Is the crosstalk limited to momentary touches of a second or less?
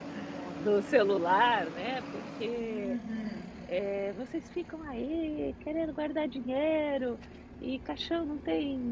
Yes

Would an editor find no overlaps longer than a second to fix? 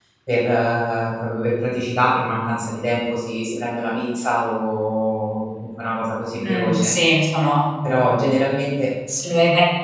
Yes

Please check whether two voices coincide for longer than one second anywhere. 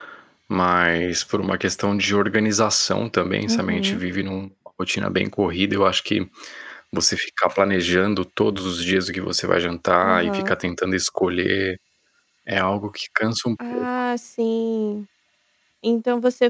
No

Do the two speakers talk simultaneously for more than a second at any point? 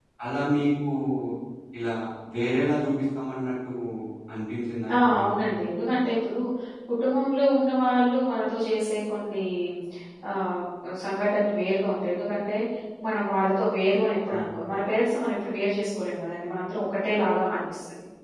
No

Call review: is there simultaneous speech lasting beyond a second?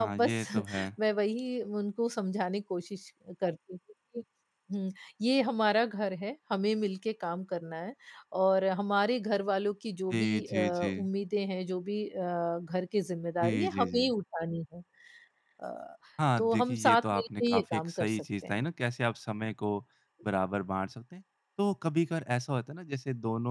Yes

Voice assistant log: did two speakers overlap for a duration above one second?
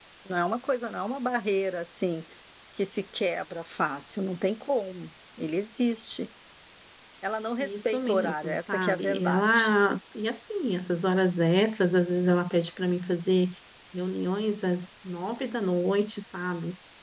Yes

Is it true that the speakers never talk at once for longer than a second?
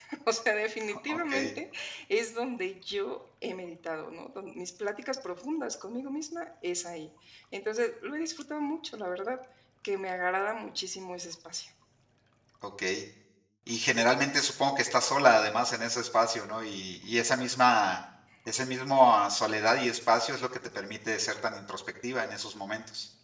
Yes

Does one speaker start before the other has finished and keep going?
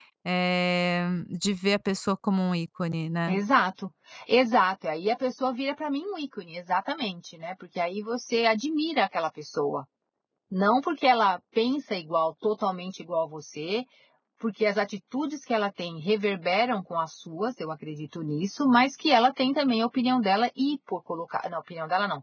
No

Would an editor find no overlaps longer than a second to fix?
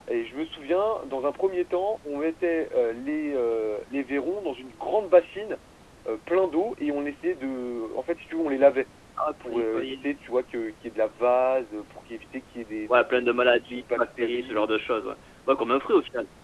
No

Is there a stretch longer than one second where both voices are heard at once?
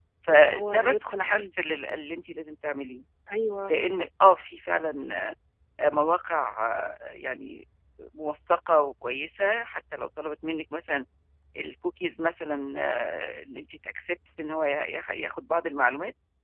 Yes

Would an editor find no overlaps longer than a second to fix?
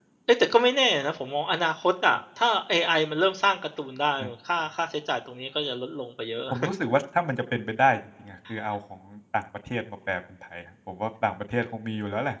Yes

